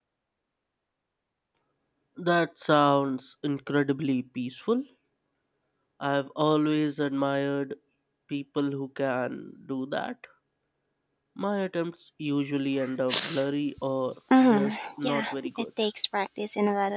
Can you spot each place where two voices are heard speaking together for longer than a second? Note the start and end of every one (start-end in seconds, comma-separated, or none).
14.4-15.6